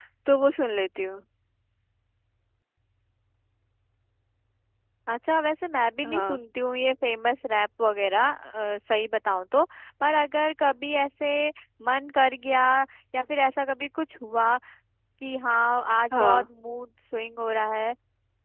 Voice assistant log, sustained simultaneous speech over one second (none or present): none